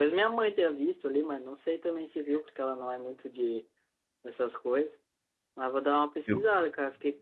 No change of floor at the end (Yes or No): Yes